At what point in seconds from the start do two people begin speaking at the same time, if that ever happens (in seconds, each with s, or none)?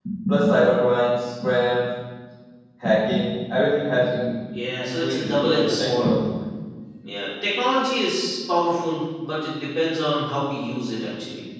4.8 s